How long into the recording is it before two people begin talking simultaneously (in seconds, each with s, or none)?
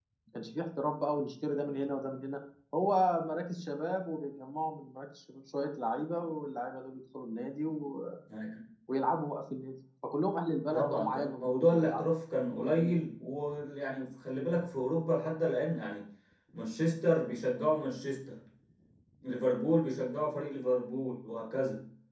10.7 s